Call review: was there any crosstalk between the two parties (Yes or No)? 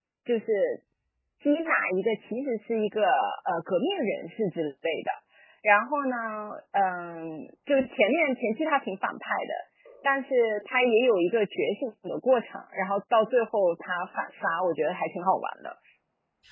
No